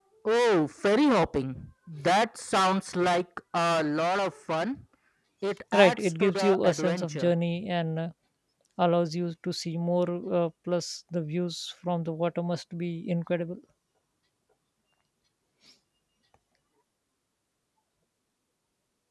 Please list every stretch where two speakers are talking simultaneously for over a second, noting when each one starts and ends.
5.7-7.3

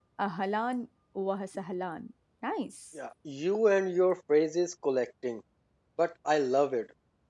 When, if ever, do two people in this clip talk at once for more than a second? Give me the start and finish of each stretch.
none

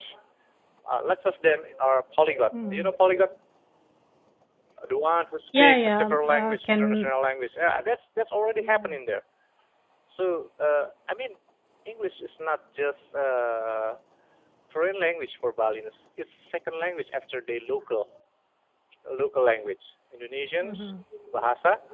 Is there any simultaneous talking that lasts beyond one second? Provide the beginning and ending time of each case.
5.6-7.1

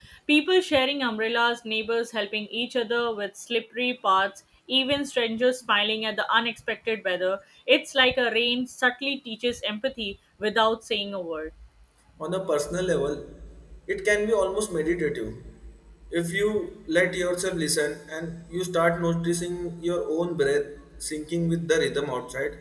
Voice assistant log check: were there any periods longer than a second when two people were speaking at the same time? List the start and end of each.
none

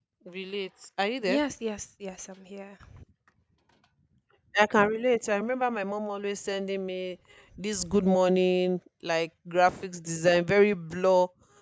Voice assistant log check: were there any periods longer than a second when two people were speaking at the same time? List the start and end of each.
none

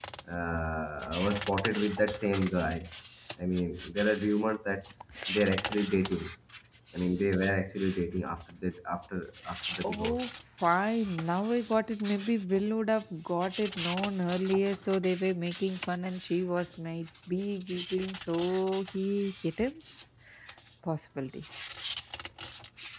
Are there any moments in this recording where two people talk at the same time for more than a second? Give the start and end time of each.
none

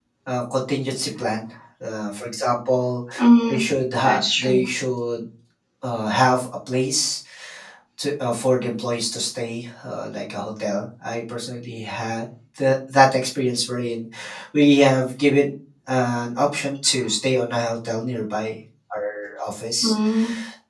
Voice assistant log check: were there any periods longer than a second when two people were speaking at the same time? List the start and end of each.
none

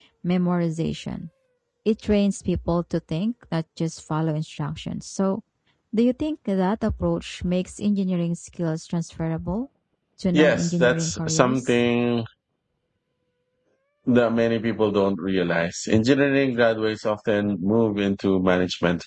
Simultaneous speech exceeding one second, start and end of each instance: 10.3-11.8

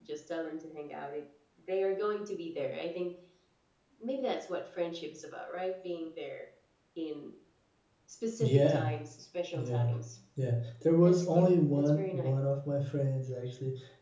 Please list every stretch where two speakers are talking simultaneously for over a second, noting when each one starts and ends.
11.0-12.3

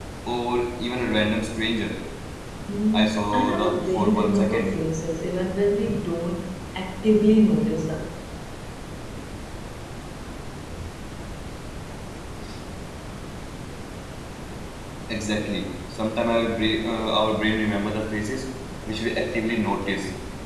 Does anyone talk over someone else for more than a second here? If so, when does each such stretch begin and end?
2.9-4.8

